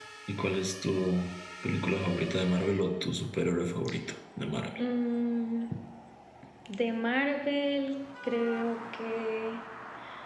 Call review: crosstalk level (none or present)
none